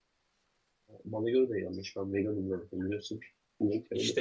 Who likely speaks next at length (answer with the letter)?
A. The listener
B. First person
A